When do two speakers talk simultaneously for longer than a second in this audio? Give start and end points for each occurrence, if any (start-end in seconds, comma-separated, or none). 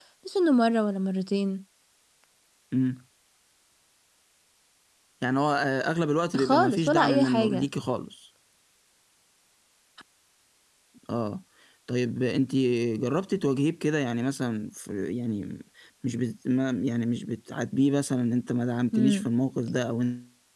6.4-7.7